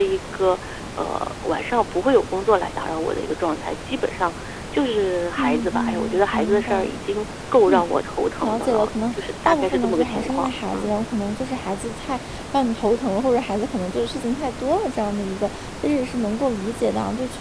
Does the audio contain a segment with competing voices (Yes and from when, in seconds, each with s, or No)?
Yes, from 5.4 s